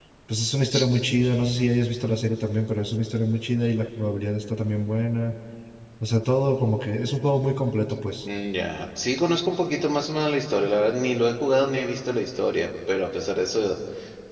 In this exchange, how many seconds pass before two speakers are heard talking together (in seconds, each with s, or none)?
none